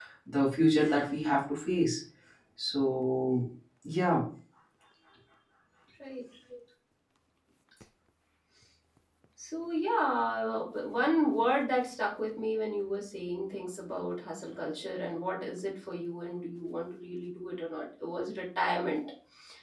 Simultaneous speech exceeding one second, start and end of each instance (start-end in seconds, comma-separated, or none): none